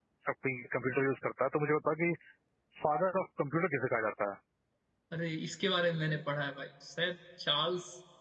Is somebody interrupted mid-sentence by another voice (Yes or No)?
No